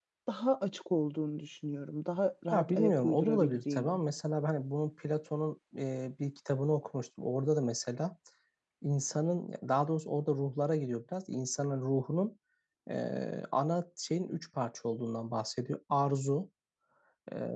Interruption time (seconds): 2.5 s

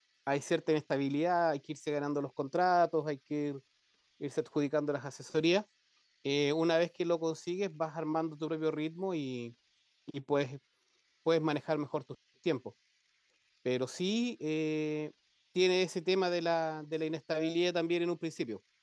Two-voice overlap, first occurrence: none

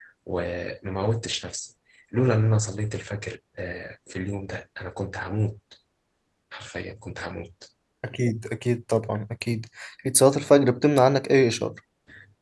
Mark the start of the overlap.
none

